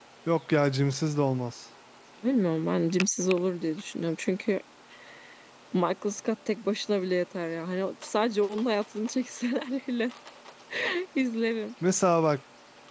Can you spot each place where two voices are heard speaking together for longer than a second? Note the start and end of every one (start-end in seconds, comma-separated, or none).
none